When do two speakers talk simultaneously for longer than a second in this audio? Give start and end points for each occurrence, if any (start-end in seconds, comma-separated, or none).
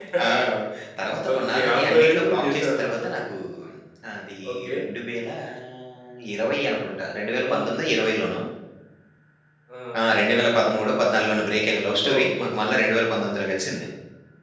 1.3-3.2